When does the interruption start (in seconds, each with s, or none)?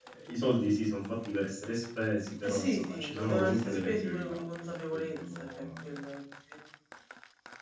2.4 s